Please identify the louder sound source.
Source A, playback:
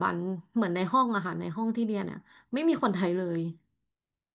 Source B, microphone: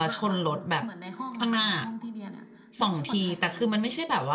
user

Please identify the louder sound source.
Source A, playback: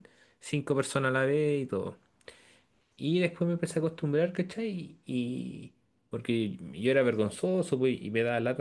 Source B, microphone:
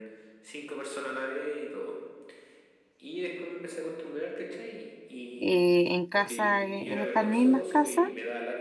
user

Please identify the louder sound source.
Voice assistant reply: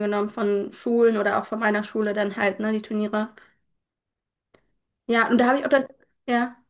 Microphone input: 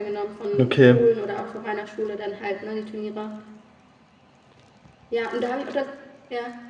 user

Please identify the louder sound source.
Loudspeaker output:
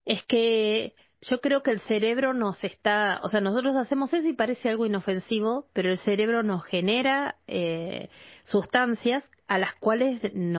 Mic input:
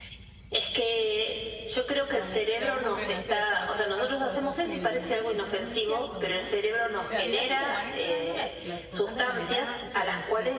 echo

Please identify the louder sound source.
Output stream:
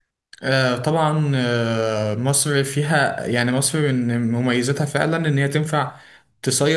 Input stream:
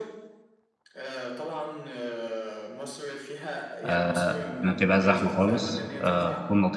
user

